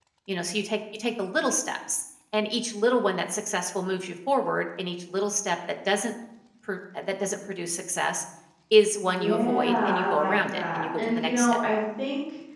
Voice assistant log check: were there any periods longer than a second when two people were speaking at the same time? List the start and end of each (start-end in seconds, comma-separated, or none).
9.0-11.6